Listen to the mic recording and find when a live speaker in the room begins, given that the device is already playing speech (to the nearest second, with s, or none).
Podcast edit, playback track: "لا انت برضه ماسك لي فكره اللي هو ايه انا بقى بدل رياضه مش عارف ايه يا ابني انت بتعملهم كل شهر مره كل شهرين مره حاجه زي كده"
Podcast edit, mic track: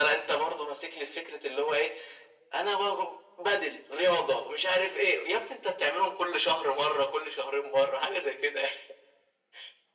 none